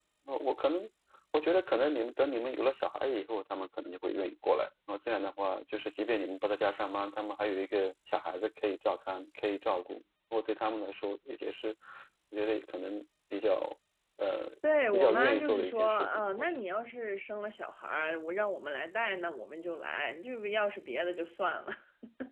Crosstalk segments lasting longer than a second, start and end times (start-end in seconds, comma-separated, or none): 14.9-16.6